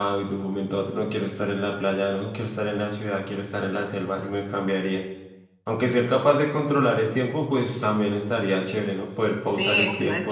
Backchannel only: No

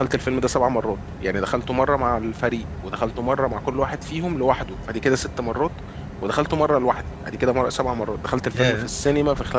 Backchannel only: Yes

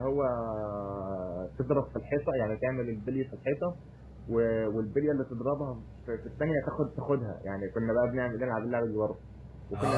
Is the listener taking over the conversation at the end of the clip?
Yes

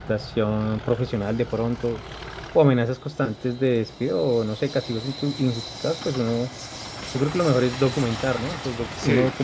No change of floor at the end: Yes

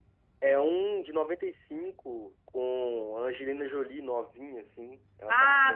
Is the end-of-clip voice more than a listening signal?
Yes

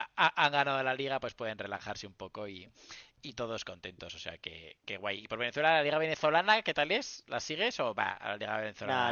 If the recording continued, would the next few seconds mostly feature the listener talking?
Yes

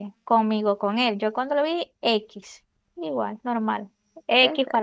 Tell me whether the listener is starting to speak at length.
No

